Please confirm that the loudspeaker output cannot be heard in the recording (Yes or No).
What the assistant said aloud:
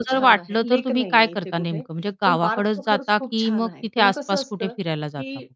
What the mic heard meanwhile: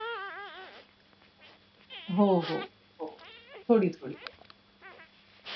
Yes